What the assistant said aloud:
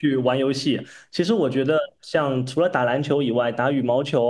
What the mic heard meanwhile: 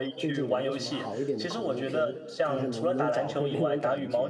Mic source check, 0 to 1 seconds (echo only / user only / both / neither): both